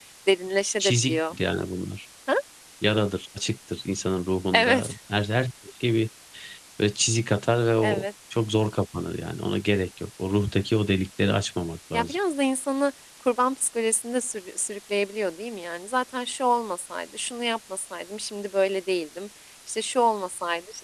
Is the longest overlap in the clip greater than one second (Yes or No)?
No